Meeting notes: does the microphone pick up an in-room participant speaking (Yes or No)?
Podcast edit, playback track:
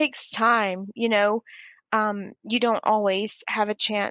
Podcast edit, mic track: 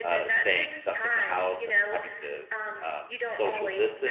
Yes